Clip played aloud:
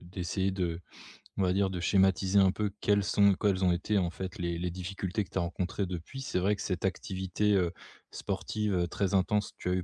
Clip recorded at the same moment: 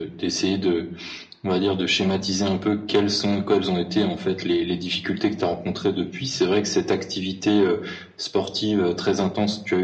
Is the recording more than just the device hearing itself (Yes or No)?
No